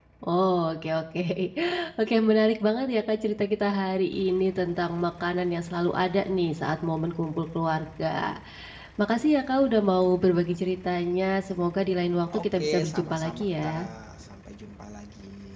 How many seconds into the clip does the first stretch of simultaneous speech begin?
12.3 s

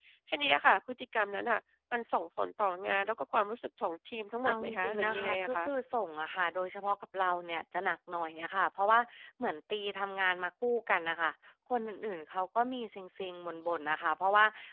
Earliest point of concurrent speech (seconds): 4.4 s

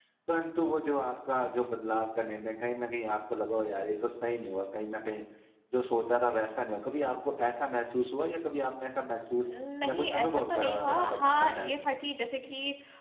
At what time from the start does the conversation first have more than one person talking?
9.9 s

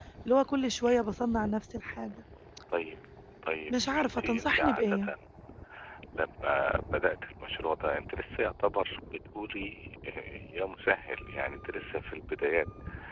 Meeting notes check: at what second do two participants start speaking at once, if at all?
3.7 s

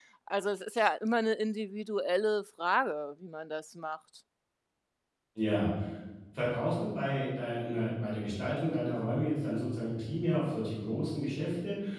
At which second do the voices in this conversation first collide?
none

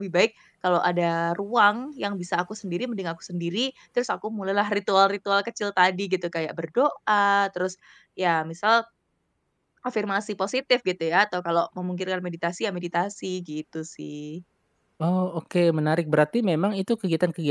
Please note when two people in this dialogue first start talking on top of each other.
none

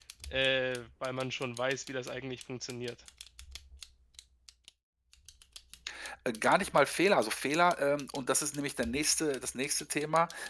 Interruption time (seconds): none

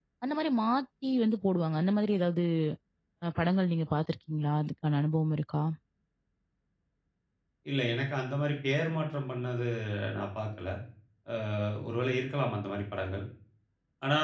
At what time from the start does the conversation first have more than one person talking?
none

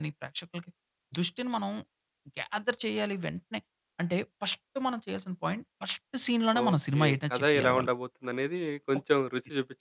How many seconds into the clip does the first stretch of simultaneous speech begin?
6.5 s

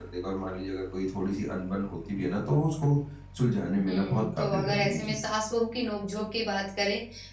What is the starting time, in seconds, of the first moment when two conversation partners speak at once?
3.9 s

